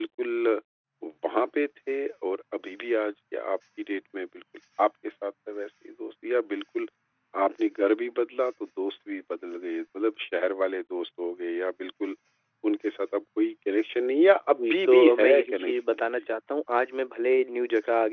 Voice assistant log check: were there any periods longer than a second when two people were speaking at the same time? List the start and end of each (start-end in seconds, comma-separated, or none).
14.6-16.1